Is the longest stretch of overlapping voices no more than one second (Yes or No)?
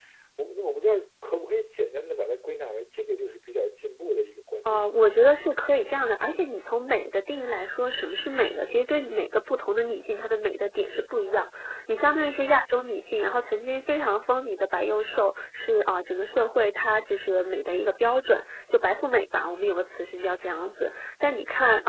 Yes